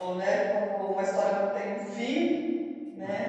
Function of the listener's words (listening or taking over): taking over